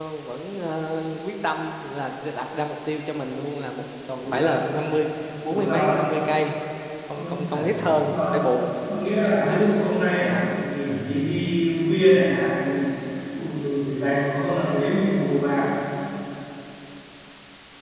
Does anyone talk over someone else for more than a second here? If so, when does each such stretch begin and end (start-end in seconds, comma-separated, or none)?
7.1-8.3